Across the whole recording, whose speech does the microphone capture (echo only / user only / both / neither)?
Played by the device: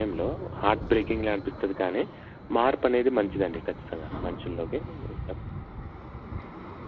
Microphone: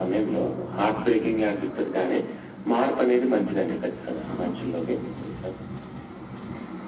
echo only